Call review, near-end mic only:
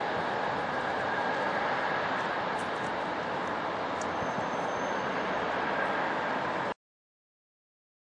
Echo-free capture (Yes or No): Yes